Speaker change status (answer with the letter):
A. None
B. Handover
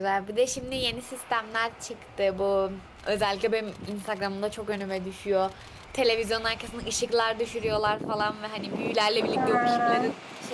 A